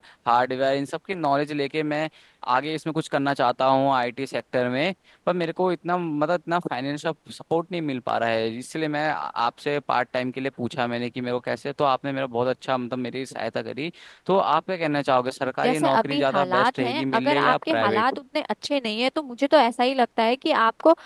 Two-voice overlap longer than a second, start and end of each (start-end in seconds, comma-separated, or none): 15.6-18.0